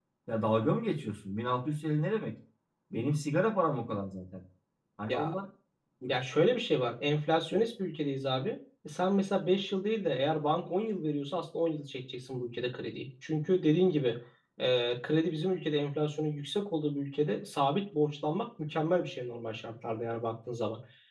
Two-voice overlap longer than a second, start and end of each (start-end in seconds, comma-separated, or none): none